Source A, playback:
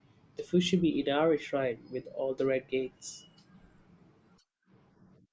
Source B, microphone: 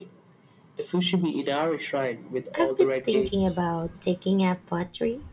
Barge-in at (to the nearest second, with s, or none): 3 s